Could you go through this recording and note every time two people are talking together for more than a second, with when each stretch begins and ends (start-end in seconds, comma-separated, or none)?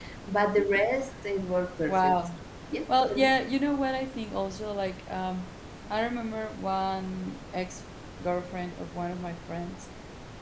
none